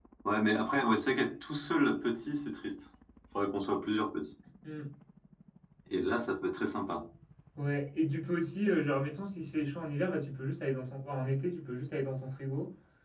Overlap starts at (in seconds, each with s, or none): none